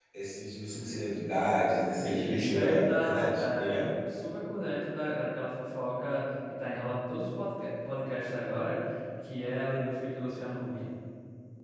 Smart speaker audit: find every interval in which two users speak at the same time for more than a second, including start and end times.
2.0-3.9

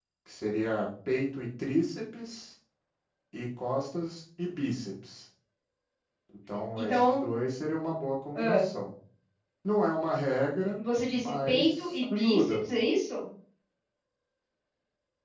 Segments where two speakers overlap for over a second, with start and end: 11.2-12.6

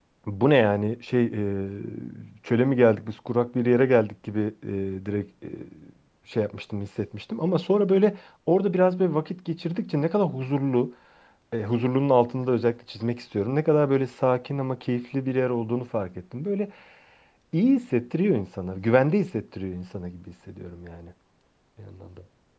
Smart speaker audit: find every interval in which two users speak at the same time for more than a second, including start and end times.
none

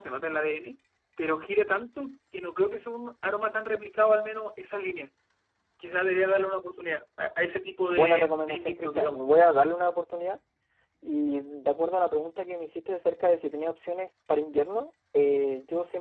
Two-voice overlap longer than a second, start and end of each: 7.9-9.2

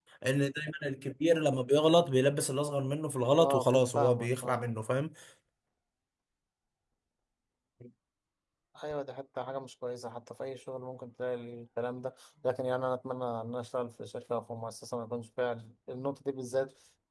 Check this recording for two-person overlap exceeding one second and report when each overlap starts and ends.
3.3-4.7

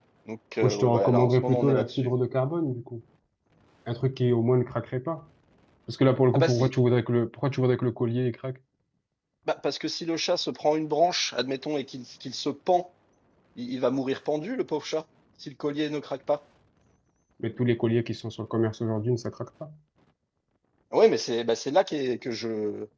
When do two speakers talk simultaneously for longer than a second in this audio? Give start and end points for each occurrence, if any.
0.6-2.1

